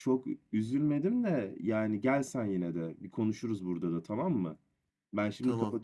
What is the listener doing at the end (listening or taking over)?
listening